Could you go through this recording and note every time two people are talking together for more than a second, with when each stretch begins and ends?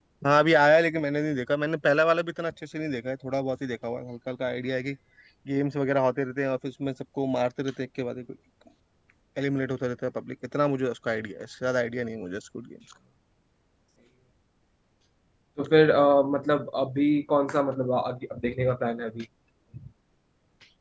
none

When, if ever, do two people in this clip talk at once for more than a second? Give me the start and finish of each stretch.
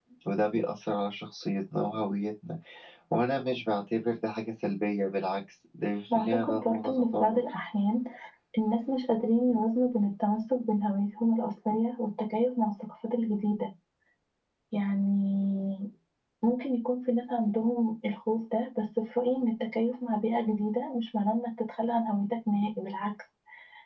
6.2-7.4

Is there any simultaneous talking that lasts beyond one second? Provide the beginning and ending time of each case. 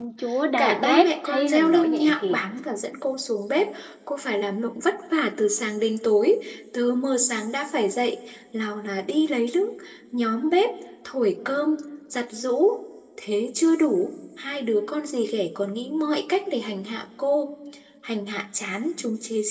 0.6-2.4

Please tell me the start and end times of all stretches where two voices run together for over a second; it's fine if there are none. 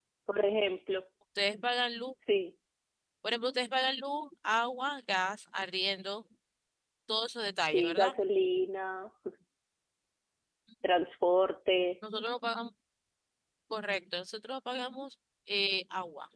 none

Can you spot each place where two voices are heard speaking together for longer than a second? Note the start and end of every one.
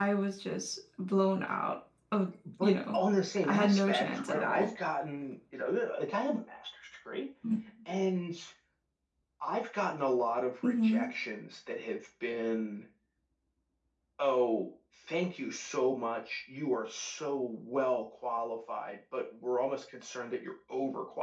3.4-4.7

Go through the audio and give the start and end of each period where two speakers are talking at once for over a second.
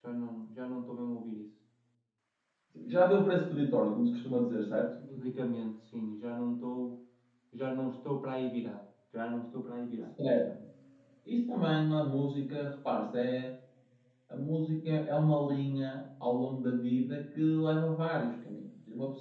none

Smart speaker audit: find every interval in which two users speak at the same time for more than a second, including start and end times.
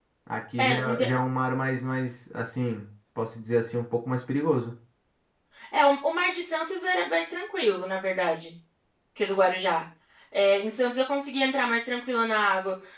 none

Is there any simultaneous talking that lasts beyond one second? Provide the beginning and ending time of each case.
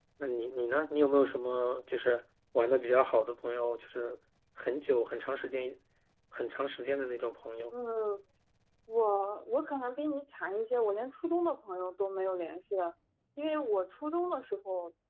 none

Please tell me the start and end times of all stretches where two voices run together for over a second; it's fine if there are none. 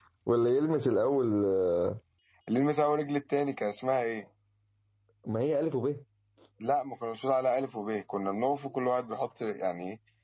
none

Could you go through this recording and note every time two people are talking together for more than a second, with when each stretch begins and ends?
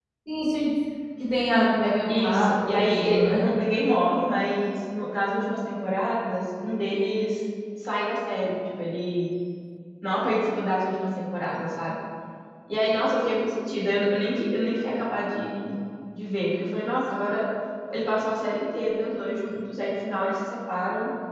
2.1-3.4

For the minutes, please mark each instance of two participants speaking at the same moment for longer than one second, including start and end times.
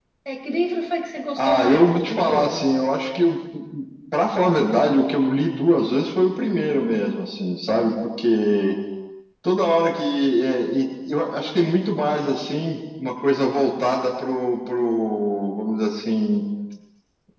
1.4-2.8

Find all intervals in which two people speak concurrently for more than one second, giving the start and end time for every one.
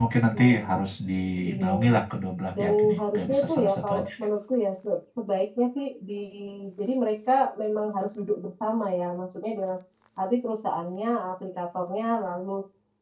2.5-4.1

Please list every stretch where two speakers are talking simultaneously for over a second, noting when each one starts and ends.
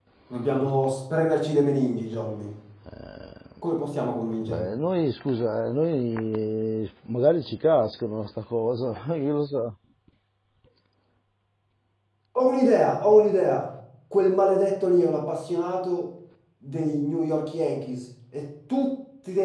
none

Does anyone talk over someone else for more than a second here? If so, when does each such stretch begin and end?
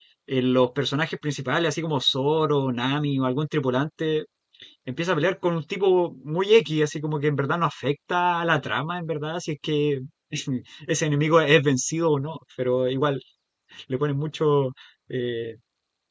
none

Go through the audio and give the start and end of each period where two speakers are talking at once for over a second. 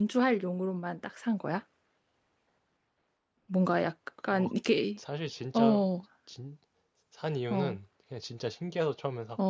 none

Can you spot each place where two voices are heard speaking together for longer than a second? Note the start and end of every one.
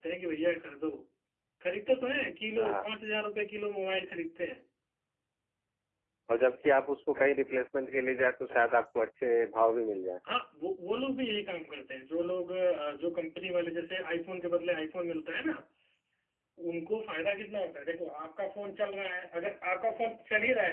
none

